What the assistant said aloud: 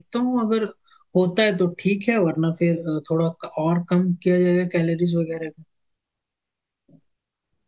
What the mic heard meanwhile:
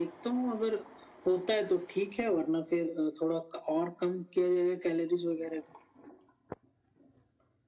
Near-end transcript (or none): none